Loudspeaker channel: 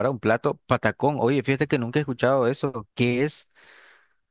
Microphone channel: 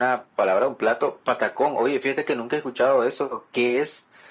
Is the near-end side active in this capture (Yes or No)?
No